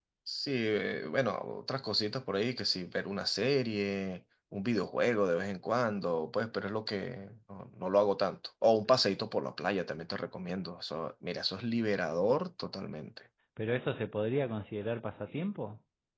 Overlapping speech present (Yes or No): No